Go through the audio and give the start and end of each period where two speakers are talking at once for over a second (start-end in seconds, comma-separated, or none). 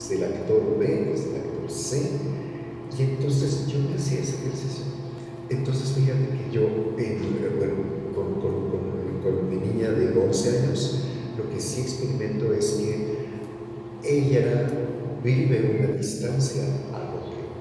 none